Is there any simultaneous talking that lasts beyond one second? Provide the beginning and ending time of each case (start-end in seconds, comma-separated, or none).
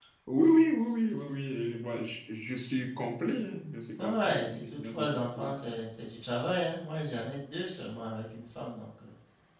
4.0-5.5